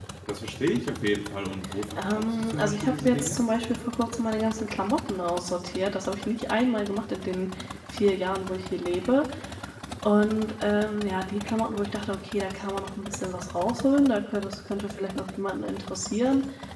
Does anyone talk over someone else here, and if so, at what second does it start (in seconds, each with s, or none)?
1.9 s